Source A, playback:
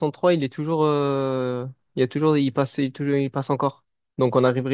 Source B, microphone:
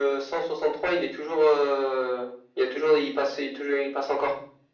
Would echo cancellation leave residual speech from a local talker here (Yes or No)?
No